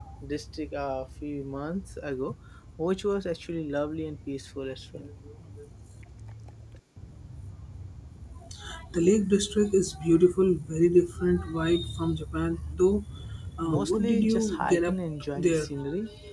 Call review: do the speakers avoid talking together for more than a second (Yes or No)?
No